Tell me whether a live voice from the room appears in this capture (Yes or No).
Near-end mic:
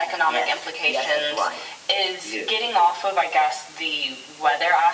No